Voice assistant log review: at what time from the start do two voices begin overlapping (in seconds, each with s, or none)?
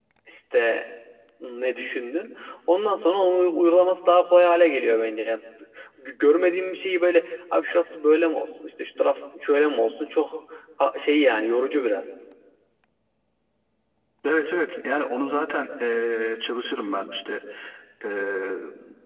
none